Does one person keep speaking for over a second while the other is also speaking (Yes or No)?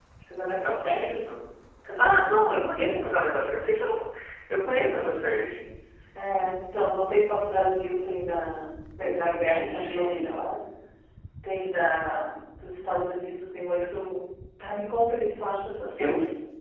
Yes